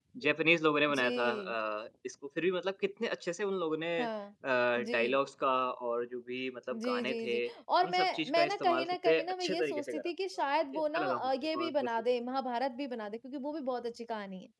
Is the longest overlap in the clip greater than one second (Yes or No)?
Yes